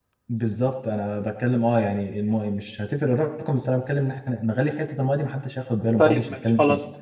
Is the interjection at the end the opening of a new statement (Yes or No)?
Yes